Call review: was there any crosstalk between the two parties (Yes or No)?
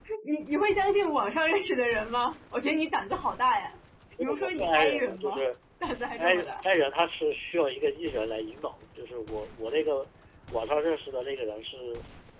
Yes